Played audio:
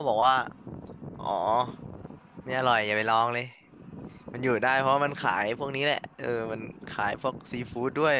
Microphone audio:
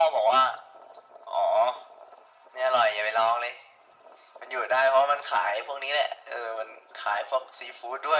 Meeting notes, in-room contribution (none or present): none